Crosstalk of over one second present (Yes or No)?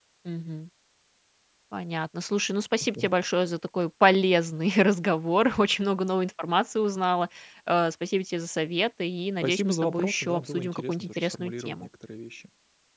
Yes